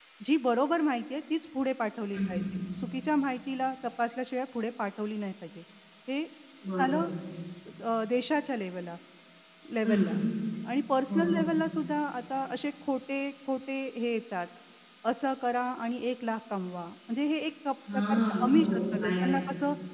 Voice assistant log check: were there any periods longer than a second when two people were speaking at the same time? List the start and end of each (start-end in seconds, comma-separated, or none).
17.9-19.4